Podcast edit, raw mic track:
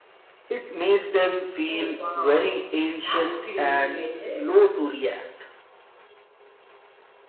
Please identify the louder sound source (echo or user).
echo